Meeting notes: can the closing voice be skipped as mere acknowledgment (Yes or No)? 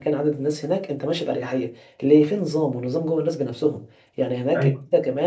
Yes